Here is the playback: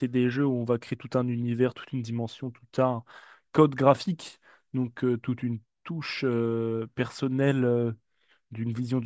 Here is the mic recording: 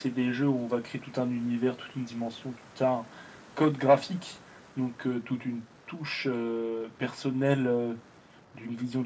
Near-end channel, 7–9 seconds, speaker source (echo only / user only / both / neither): echo only